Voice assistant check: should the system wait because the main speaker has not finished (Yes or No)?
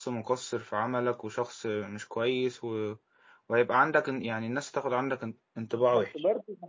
No